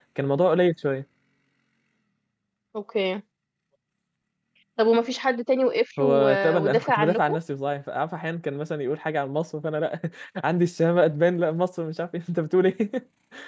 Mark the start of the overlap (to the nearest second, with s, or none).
6 s